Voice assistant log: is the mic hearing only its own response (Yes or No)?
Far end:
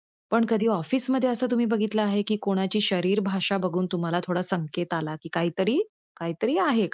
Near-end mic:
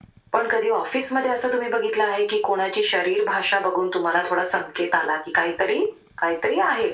Yes